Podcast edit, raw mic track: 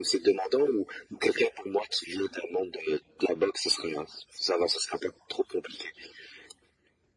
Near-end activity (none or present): none